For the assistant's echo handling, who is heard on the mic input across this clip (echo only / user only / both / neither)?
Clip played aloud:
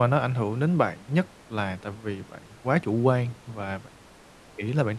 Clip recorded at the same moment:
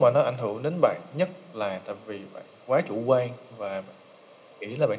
echo only